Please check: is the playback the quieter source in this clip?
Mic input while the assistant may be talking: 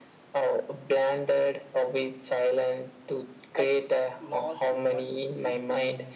No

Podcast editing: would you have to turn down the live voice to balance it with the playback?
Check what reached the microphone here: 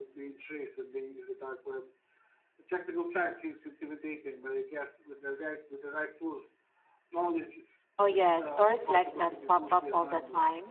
Yes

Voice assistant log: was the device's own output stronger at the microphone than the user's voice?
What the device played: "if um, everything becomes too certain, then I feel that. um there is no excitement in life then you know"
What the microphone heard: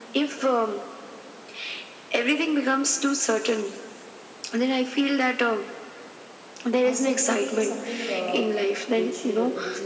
Yes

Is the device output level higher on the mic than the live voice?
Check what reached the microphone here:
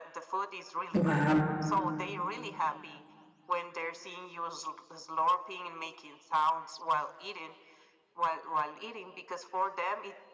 No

